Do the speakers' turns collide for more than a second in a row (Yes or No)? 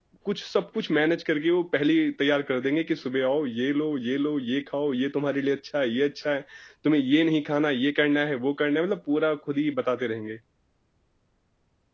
No